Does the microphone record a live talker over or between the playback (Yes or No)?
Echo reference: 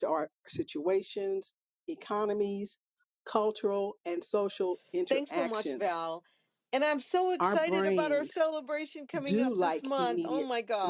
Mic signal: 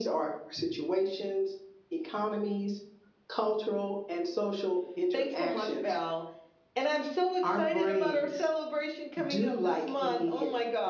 No